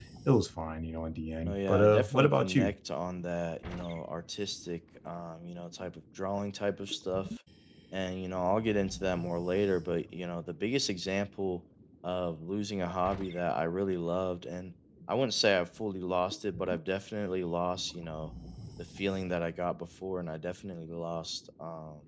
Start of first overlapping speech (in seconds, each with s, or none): 1.4 s